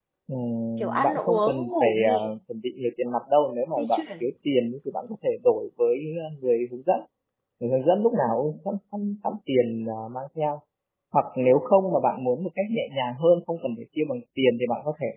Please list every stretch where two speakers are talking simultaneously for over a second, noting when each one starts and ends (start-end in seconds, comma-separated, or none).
0.8-2.3